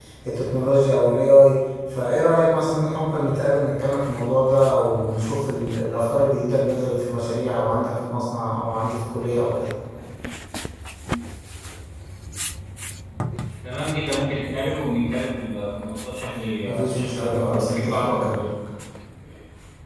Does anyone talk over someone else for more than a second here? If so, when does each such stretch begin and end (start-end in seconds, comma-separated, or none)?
16.9-18.5